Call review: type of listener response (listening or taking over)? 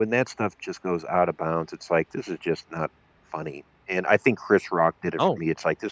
listening